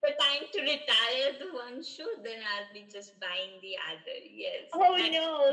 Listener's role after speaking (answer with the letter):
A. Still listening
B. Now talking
B